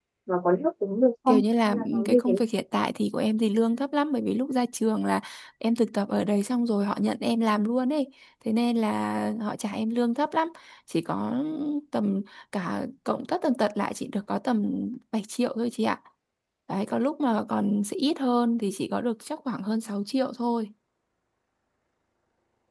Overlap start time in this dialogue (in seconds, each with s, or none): 1.3 s